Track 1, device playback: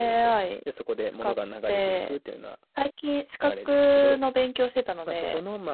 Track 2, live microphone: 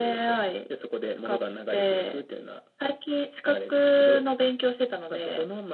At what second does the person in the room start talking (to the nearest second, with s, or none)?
none